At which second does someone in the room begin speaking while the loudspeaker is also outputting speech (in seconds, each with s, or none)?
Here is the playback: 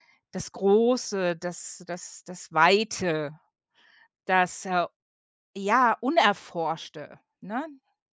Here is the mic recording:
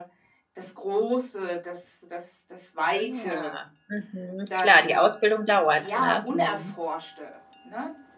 2.9 s